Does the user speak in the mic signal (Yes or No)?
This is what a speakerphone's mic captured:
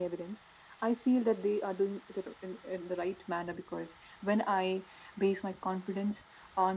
No